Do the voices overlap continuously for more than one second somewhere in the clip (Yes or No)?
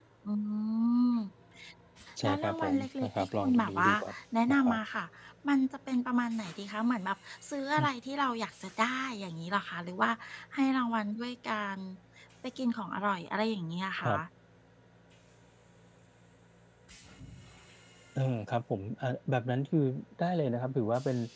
Yes